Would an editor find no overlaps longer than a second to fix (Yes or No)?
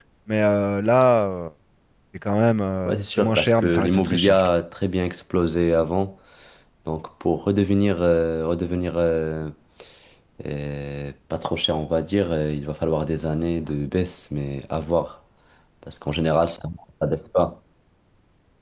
No